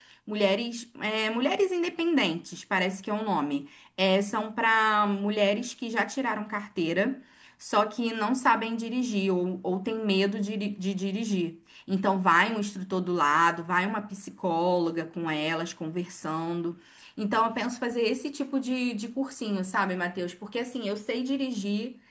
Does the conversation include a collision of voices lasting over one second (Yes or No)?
No